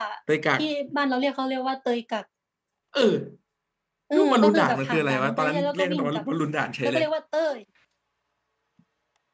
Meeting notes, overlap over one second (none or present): present